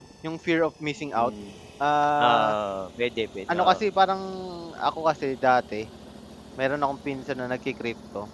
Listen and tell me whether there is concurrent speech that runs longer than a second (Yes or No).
No